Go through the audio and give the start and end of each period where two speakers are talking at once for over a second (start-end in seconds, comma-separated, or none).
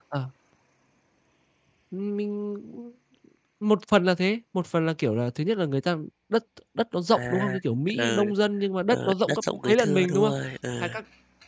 8.9-10.3